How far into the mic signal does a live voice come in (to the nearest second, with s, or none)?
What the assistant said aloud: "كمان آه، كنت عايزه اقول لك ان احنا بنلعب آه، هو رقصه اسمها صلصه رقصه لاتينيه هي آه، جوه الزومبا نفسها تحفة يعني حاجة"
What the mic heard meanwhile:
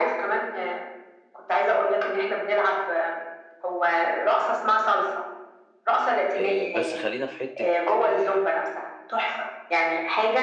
6 s